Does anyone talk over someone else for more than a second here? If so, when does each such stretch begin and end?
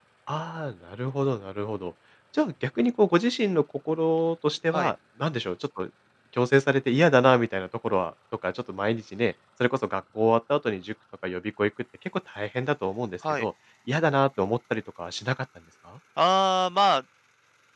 none

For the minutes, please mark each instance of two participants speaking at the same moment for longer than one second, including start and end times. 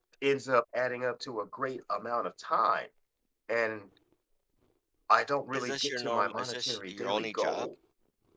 5.5-7.7

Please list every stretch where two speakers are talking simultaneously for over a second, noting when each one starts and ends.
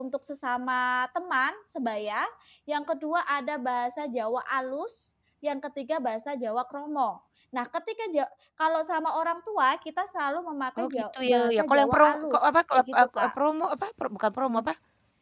10.8-13.3

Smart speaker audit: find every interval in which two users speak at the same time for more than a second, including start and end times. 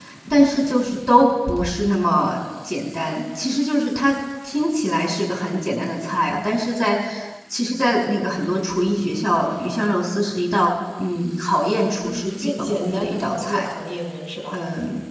12.0-13.6

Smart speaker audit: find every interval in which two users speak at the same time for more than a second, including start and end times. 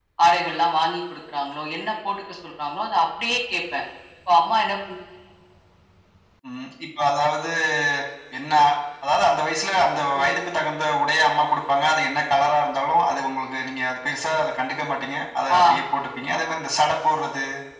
none

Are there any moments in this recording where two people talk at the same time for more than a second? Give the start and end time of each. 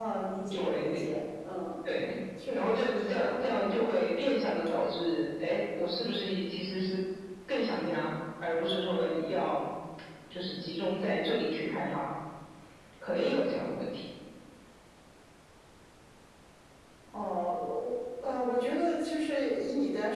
2.5-3.8

